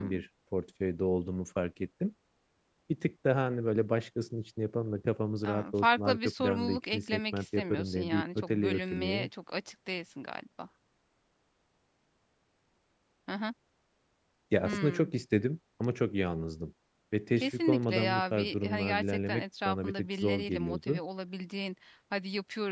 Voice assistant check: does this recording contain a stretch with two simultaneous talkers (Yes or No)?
Yes